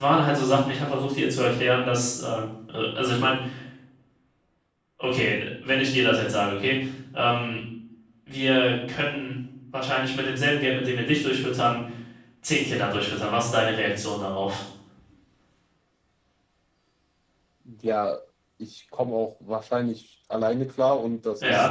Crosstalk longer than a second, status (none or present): none